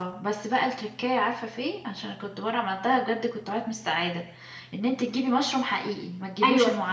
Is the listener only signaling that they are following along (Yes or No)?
No